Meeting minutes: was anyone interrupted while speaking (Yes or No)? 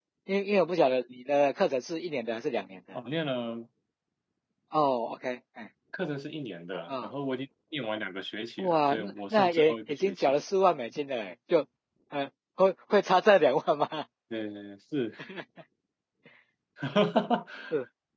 Yes